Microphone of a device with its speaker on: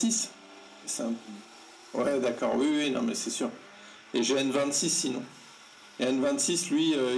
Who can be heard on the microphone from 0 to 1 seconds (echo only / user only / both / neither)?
echo only